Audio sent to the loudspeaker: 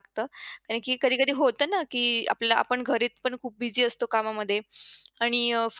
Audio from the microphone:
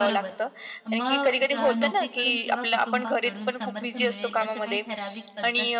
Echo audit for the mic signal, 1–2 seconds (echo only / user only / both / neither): both